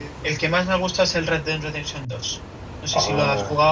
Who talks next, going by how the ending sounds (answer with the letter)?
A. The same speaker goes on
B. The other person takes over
B